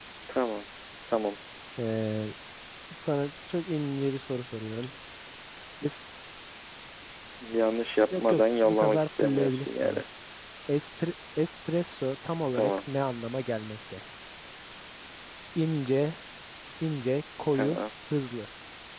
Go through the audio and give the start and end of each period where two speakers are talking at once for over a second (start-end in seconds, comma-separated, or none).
8.1-10.0